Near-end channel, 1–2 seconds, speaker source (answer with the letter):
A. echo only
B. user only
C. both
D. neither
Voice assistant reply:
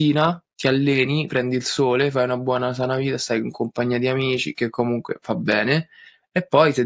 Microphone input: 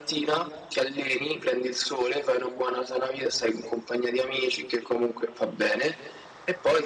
A